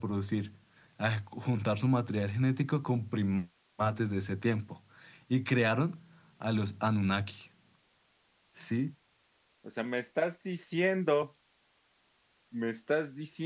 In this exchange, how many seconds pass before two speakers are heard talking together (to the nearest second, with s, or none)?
none